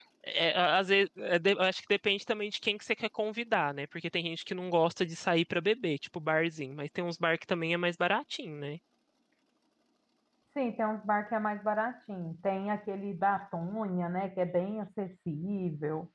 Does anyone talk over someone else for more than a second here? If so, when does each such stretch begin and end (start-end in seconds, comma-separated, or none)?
none